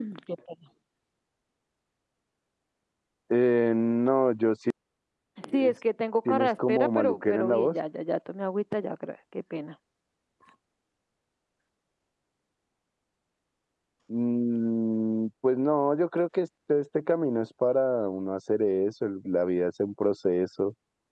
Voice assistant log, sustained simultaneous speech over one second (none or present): present